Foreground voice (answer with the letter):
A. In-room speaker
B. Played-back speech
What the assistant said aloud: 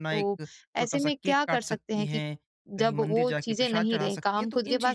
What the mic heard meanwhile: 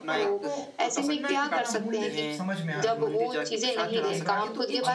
B